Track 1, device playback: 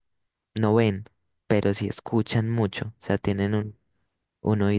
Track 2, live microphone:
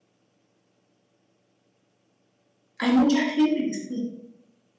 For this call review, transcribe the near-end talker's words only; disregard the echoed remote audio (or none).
hay mucha gente que sí.